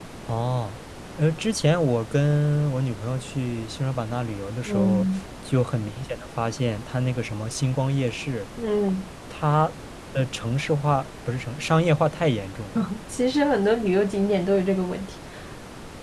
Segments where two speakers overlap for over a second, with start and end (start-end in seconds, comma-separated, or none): none